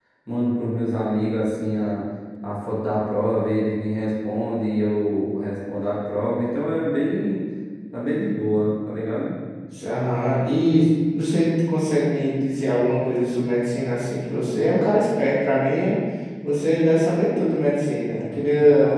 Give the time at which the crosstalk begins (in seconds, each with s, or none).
none